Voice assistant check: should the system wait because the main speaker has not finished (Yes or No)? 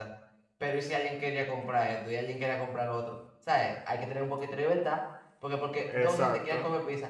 Yes